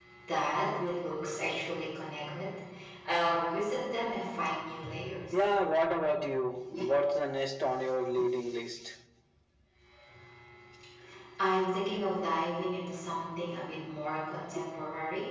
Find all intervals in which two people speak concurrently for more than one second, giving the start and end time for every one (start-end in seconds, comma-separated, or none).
none